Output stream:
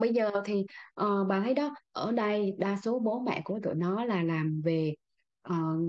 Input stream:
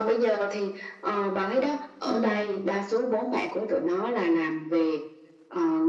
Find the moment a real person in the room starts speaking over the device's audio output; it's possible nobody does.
2 s

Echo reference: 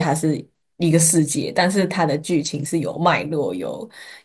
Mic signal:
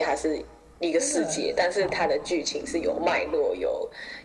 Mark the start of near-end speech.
1 s

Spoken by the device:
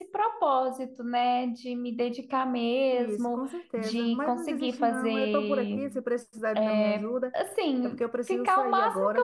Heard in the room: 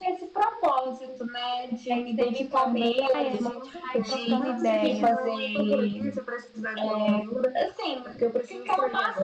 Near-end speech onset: 2 s

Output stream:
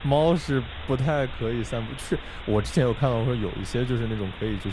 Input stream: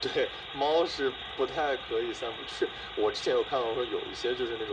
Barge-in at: none

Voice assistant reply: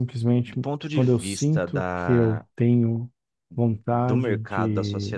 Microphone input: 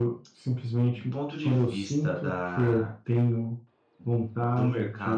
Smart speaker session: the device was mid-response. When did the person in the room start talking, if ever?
none

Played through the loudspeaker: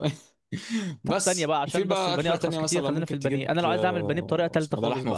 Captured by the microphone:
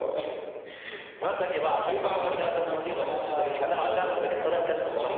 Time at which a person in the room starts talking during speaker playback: 2 s

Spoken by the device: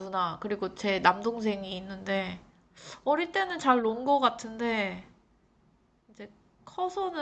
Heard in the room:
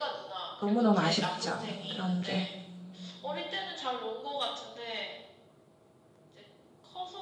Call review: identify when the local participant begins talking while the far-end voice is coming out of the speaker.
1 s

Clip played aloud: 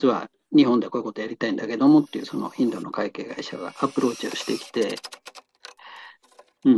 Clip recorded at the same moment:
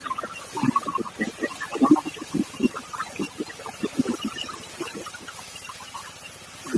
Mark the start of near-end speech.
none

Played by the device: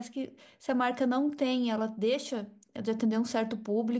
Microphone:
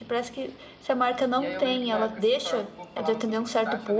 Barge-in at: 1 s

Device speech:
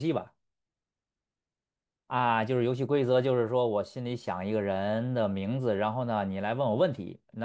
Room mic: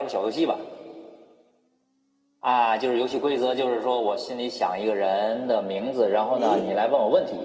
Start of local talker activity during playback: 6 s

